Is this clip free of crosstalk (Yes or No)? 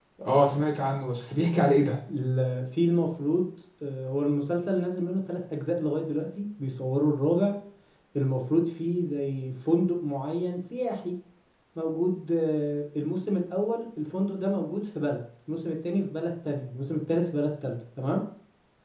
Yes